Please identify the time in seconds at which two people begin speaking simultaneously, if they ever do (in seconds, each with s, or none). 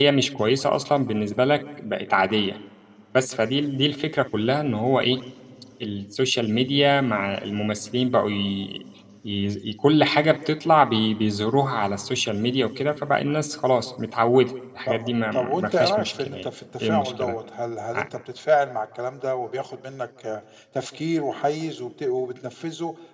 14.9 s